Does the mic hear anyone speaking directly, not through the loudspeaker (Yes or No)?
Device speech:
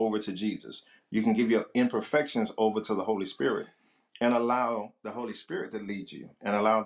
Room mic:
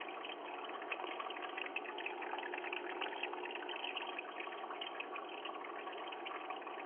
No